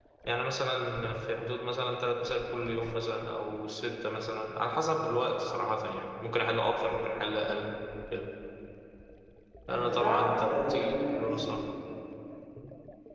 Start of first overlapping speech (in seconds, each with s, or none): 9.7 s